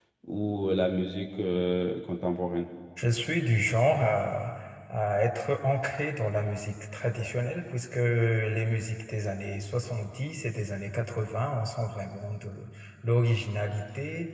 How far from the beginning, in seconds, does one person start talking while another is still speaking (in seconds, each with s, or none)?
none